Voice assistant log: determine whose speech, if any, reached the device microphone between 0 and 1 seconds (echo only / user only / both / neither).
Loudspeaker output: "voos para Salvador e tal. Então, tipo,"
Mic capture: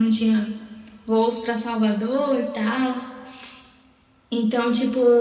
echo only